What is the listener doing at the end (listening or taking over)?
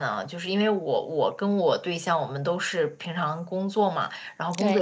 listening